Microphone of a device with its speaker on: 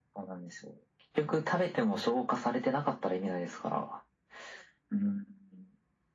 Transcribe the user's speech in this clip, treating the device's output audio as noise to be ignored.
none

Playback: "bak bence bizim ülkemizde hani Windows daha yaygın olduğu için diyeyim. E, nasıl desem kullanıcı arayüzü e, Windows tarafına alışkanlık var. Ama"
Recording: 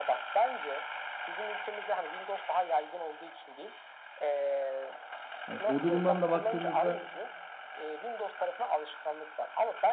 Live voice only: Hani o durumdan da baktığımızda

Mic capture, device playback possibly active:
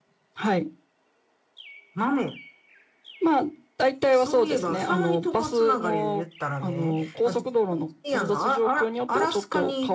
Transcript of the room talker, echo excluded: none

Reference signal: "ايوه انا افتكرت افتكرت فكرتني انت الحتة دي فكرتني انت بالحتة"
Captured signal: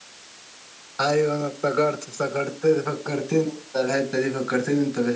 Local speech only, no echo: none

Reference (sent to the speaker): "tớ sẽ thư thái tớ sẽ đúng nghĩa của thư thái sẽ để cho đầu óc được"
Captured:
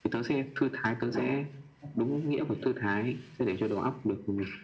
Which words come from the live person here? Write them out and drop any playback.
none

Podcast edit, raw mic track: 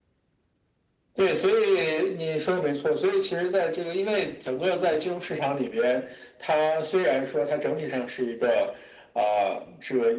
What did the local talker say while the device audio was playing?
none

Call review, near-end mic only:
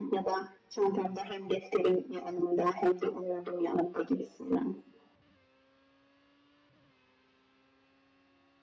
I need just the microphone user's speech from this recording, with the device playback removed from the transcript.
none

